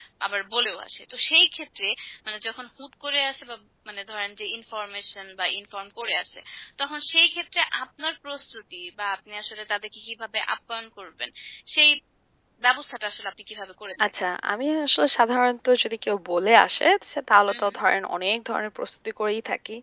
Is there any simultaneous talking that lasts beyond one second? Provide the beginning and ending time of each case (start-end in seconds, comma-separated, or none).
none